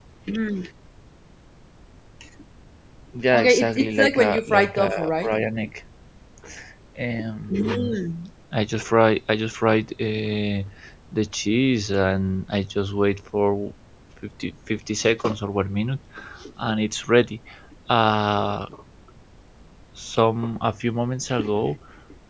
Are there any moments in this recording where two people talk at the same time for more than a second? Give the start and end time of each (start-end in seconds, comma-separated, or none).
3.4-5.3